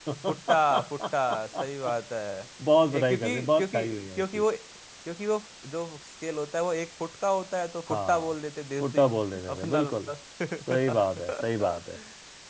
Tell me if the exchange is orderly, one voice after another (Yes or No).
No